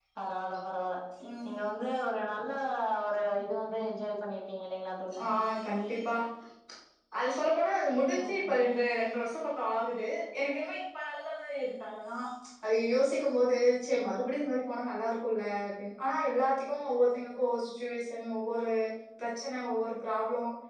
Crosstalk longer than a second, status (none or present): none